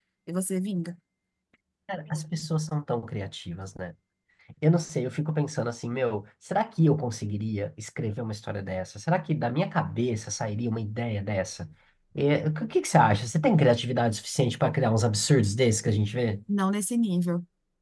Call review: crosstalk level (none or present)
none